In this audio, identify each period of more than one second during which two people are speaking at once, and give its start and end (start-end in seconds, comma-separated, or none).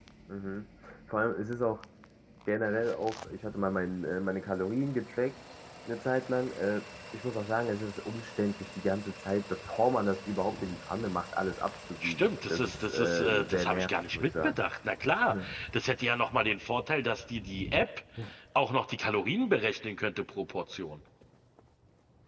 12.0-14.6